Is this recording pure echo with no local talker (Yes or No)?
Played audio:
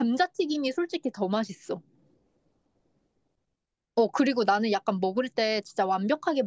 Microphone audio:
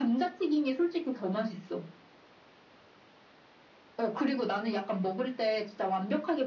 Yes